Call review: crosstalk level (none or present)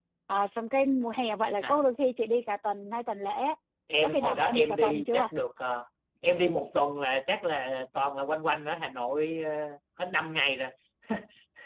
present